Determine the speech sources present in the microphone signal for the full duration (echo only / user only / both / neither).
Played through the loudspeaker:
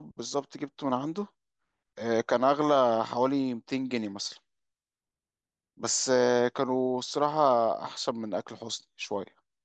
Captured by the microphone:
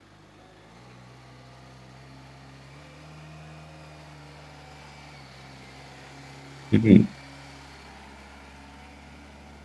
user only